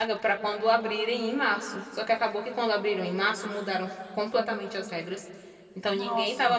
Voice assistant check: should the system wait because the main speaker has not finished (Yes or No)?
Yes